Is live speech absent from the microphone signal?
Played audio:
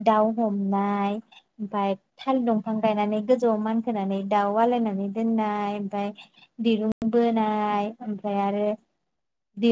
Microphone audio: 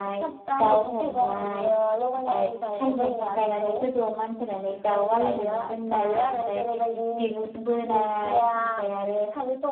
No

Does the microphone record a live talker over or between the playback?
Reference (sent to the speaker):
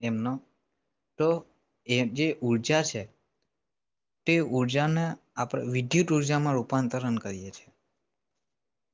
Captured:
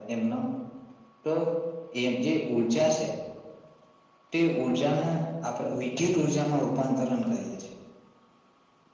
No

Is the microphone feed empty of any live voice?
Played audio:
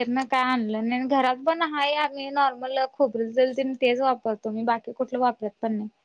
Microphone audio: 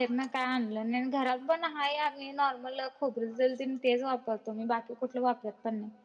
Yes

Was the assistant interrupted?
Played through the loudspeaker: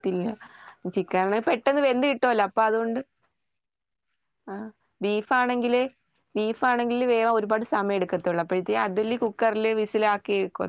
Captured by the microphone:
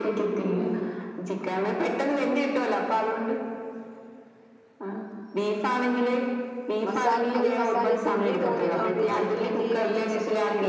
Yes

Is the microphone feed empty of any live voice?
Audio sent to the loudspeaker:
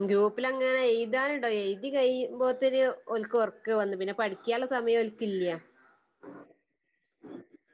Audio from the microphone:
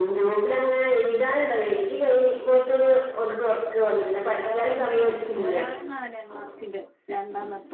No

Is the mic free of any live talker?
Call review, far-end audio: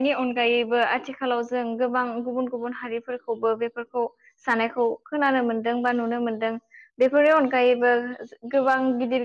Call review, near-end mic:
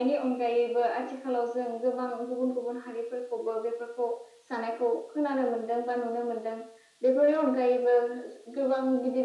Yes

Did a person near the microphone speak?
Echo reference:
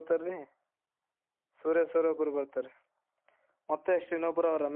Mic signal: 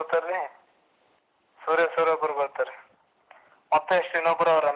No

